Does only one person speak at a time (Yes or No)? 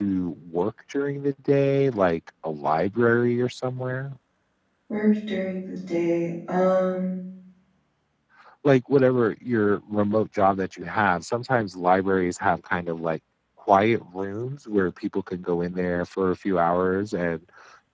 Yes